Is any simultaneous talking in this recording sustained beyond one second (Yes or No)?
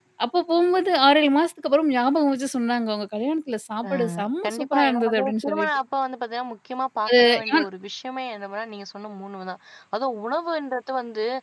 Yes